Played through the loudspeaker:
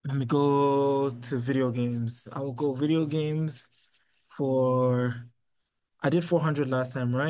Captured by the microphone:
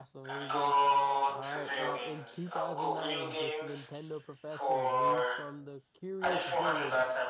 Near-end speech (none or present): present